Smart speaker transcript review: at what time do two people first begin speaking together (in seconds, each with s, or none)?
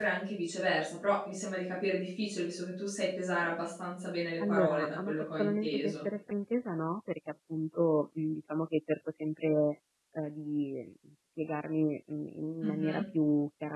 4.5 s